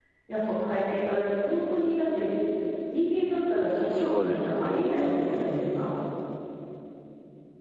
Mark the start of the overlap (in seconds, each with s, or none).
4.0 s